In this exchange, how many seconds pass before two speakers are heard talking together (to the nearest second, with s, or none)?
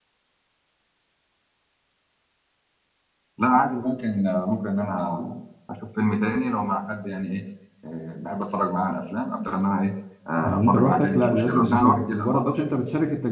10 s